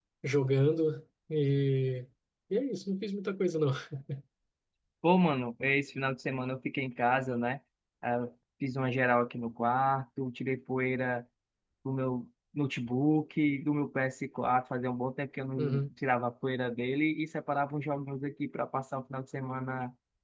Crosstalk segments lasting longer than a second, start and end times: none

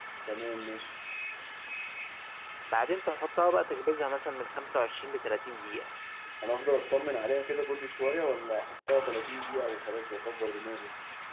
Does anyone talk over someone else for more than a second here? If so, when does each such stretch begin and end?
none

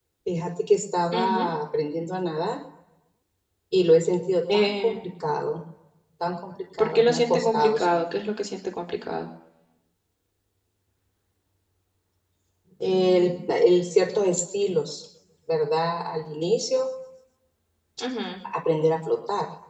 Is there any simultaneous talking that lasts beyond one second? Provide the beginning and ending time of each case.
6.8-8.2

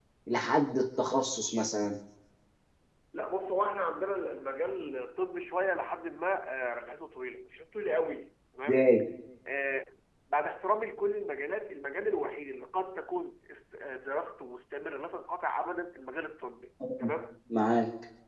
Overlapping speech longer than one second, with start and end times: none

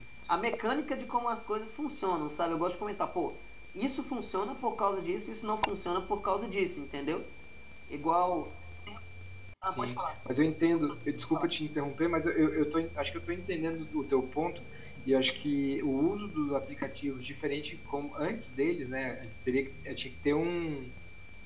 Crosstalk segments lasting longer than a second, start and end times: none

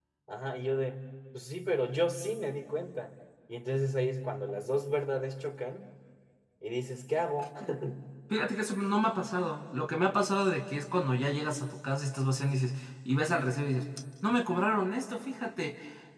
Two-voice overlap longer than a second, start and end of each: none

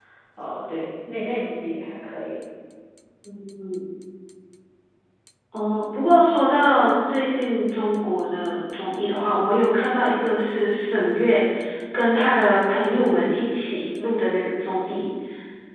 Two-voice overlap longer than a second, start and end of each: none

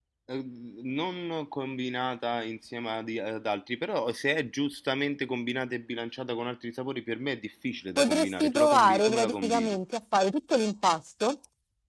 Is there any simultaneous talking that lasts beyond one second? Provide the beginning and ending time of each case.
8.0-9.8

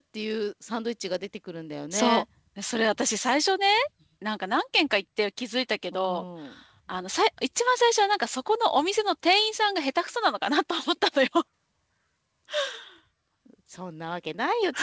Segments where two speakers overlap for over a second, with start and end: none

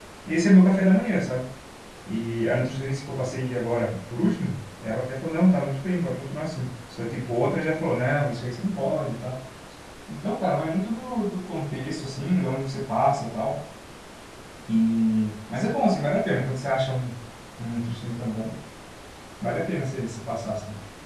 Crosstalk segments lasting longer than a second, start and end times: none

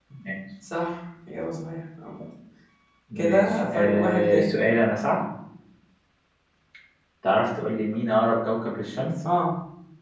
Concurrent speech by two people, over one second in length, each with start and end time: 3.2-4.5

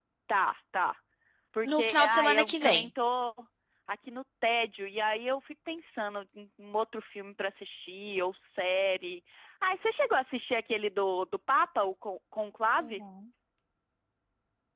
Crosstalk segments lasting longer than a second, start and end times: 1.6-2.8

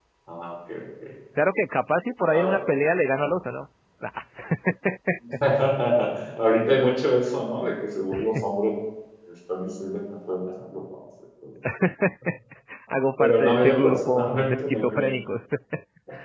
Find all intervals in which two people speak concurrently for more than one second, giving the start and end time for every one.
13.2-15.1

